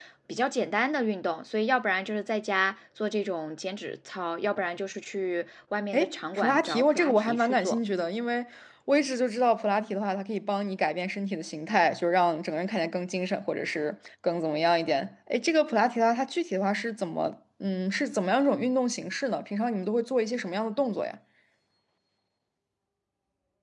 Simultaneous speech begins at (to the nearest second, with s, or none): 6 s